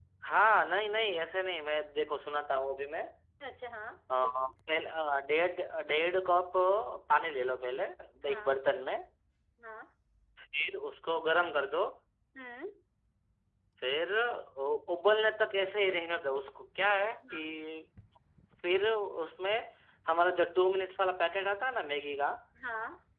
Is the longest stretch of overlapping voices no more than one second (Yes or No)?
Yes